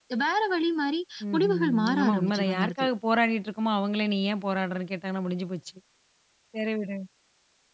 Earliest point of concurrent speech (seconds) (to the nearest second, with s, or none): 1 s